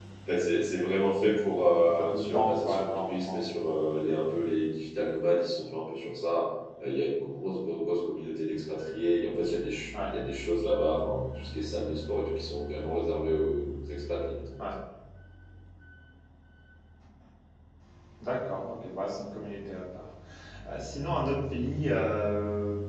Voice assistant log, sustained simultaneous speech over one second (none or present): present